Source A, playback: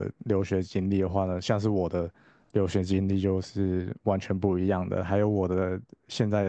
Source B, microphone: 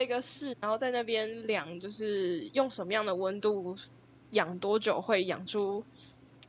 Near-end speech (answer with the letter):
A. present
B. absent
A